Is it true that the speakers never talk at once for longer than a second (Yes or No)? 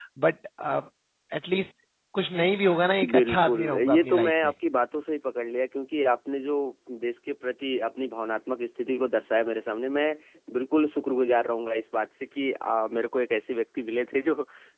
No